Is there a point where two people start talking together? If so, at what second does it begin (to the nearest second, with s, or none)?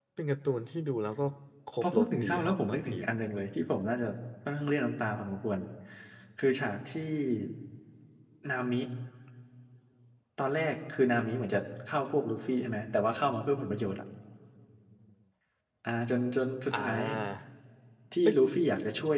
2 s